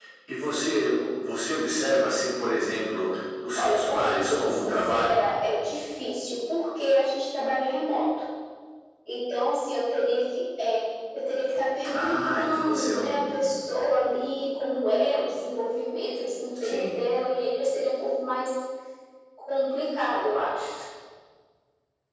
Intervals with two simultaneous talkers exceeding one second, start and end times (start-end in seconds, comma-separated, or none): 3.5-5.3, 11.9-13.5